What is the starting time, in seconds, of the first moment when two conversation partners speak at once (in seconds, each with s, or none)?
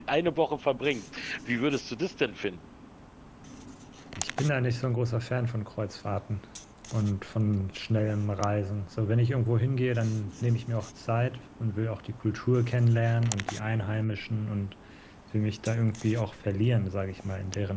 none